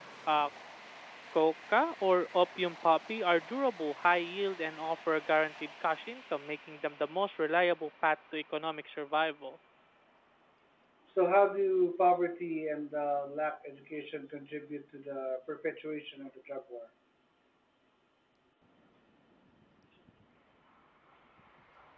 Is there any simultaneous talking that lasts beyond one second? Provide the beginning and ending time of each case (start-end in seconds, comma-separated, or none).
none